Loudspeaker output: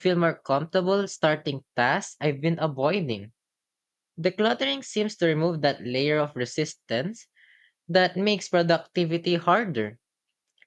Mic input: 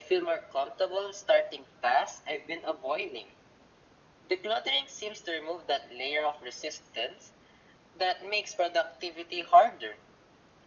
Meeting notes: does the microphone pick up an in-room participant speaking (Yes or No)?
No